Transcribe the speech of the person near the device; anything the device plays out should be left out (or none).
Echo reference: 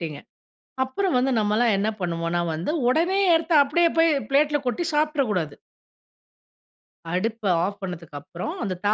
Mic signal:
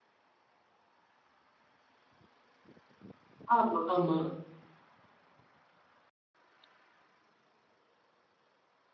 ஆமா, ஆமா.